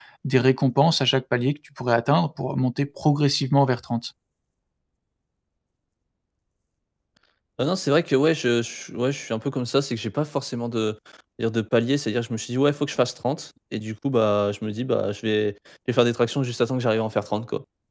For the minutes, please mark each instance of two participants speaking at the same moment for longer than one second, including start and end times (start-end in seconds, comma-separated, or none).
none